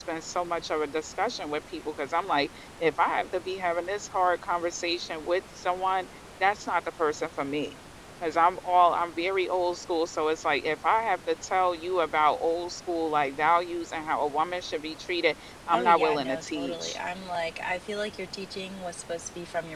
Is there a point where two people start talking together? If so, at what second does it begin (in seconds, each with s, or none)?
15.7 s